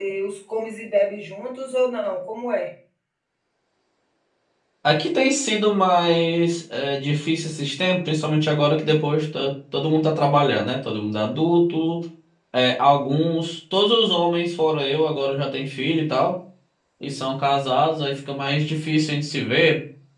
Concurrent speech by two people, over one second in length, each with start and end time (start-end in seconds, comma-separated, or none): none